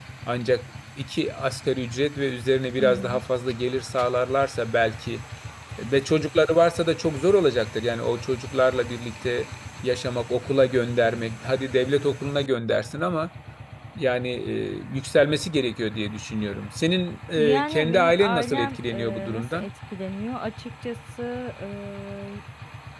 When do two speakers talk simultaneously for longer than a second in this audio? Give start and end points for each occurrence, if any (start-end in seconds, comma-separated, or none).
17.4-19.7